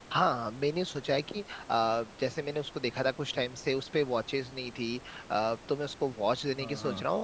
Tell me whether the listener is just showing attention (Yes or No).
Yes